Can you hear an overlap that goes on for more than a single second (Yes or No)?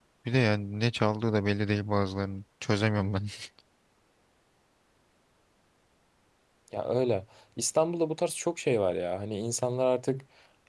No